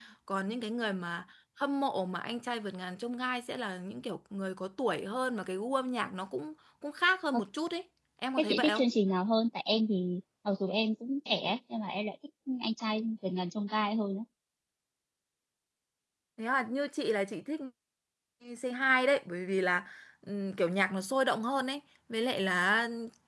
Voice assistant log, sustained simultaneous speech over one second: none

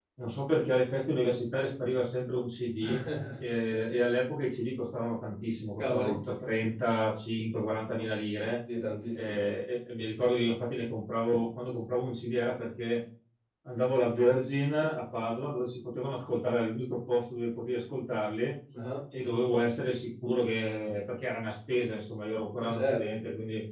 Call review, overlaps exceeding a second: none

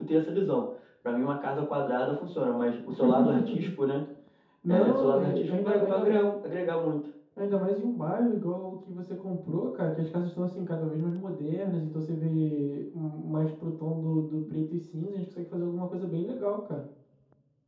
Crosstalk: present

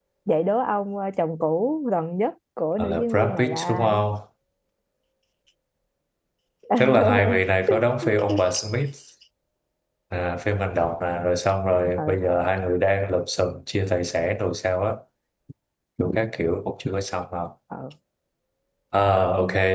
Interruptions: present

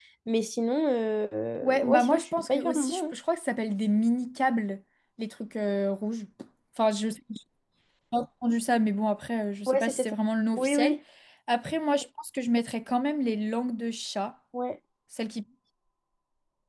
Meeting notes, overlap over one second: present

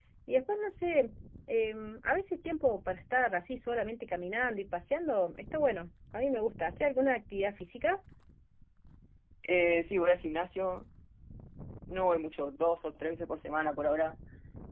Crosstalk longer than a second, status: none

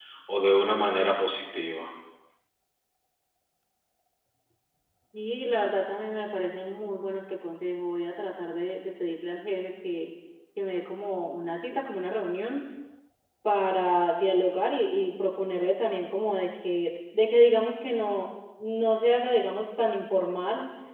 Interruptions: none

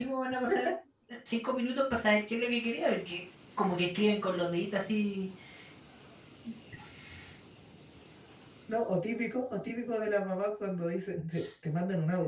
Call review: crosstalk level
none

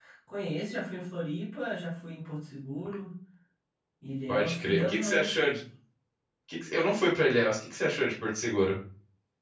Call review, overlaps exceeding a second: present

